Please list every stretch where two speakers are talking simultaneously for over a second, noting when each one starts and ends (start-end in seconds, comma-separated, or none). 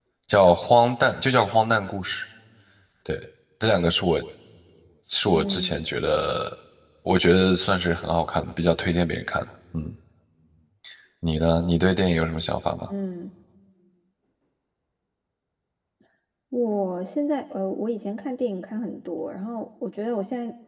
none